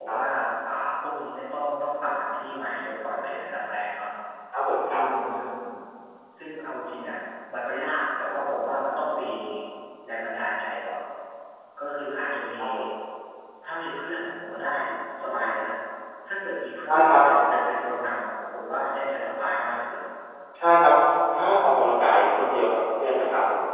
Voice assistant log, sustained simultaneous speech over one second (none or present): none